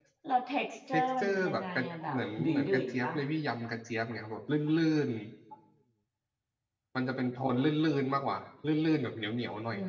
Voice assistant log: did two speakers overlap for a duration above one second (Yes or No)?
Yes